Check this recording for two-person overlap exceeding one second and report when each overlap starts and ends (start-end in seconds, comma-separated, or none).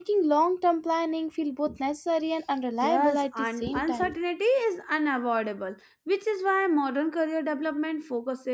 2.8-4.1